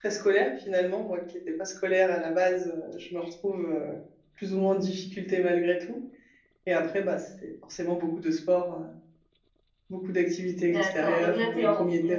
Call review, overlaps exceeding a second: present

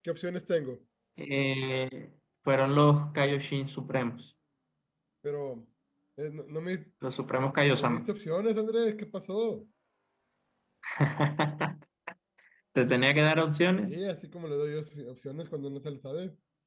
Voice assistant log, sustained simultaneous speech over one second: none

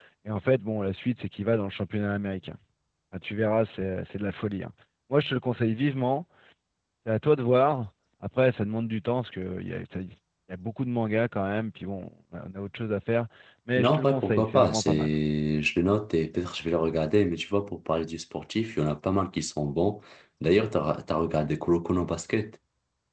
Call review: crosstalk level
present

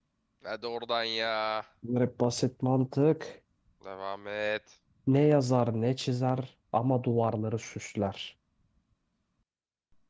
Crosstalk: none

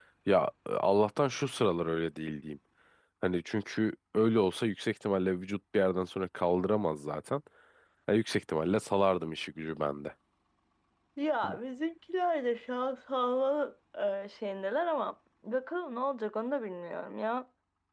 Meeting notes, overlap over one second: none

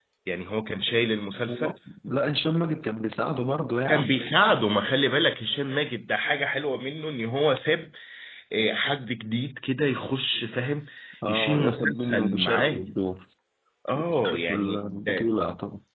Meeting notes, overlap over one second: present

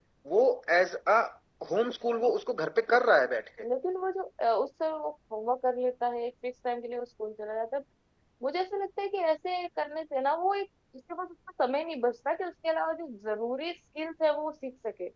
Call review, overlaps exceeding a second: none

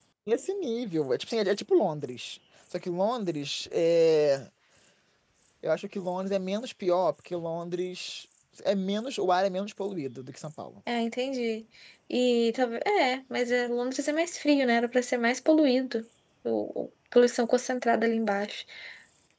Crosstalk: none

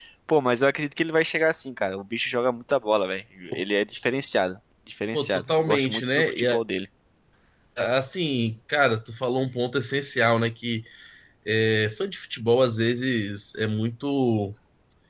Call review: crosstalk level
present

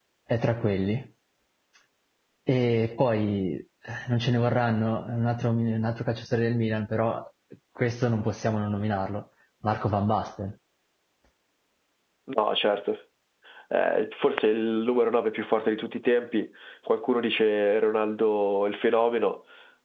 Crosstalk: none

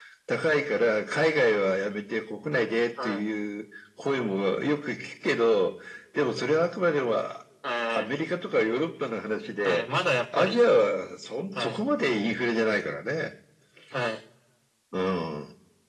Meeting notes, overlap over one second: none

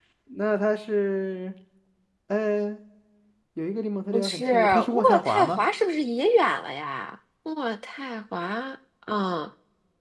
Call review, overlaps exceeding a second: present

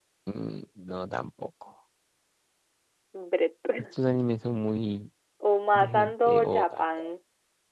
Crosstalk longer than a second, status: present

